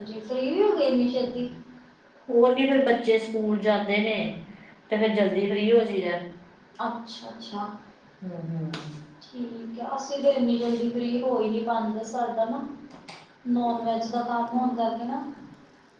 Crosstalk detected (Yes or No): No